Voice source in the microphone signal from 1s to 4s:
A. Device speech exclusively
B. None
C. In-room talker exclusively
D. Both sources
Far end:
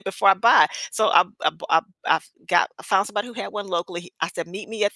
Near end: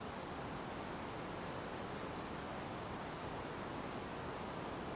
B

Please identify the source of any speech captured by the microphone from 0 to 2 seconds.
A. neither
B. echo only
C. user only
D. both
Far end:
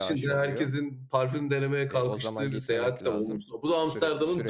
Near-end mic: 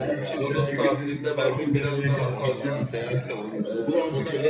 D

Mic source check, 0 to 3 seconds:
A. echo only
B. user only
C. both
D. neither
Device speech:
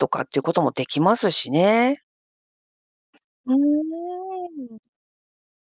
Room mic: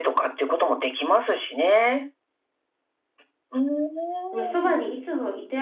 A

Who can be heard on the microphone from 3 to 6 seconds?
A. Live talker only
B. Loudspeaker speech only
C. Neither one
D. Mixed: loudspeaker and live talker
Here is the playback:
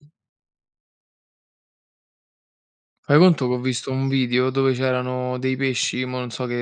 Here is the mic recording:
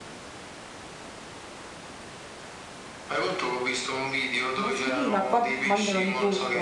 D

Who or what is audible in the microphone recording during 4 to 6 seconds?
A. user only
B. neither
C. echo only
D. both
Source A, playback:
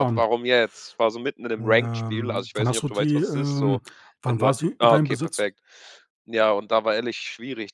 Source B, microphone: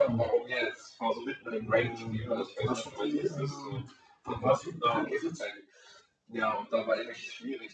C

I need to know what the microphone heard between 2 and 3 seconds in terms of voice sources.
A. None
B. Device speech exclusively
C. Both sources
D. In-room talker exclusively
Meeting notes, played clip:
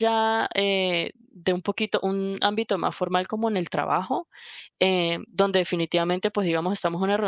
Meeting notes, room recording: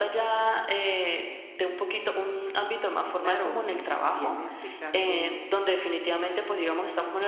B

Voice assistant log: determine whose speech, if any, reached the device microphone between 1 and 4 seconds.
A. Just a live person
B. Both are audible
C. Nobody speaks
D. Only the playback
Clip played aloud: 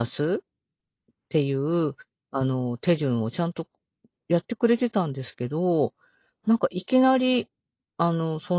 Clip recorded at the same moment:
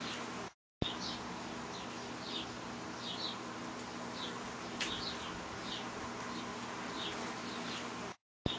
C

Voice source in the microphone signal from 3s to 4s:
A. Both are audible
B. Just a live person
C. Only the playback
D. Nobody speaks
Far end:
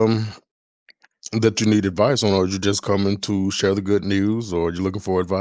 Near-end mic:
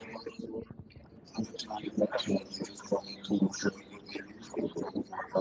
C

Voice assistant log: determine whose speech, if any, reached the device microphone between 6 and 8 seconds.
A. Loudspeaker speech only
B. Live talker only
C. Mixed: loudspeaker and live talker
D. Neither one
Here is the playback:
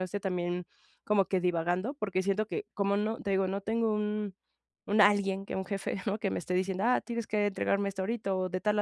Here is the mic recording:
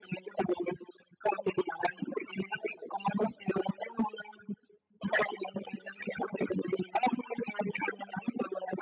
A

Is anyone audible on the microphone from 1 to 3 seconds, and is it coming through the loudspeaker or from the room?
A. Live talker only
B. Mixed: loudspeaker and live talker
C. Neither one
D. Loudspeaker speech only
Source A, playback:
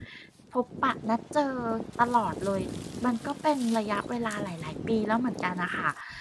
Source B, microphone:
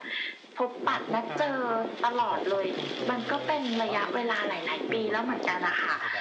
B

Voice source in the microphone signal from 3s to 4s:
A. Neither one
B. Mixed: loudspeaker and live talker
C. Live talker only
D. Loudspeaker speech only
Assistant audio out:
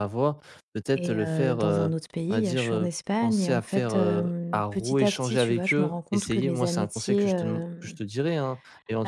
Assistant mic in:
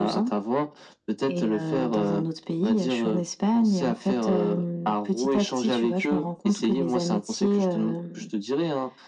D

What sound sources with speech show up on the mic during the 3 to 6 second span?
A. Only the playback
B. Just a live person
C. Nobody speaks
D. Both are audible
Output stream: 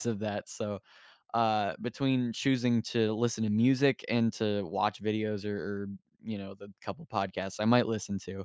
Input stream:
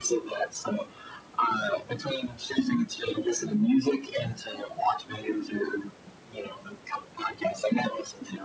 A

